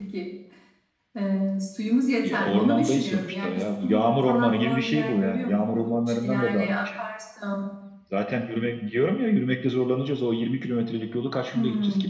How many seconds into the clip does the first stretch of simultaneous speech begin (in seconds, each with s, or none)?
2.2 s